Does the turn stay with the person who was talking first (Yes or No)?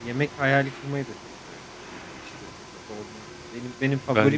Yes